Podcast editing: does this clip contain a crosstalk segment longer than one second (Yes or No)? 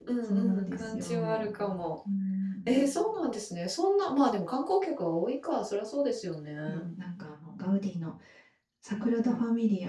Yes